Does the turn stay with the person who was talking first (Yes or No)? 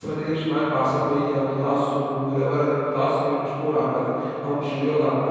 No